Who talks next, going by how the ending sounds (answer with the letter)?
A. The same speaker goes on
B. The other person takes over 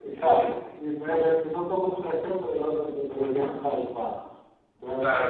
B